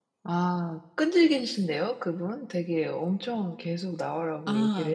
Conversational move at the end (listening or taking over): taking over